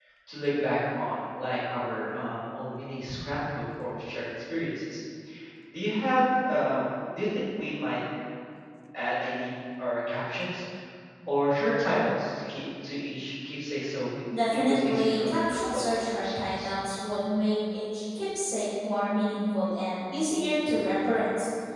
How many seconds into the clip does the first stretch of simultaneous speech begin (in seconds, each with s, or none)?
14.3 s